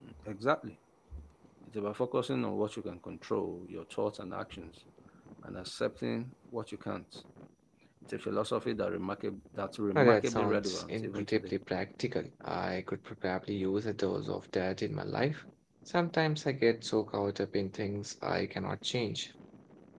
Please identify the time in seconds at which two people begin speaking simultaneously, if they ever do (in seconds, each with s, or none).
9.9 s